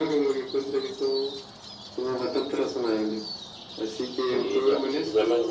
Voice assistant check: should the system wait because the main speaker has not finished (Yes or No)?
No